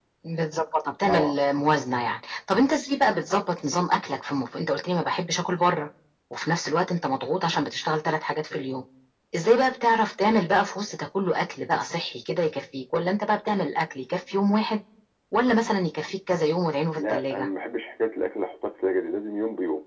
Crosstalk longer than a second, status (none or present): none